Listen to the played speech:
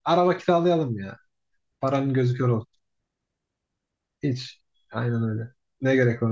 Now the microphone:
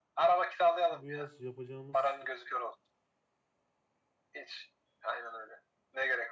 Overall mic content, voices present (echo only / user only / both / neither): both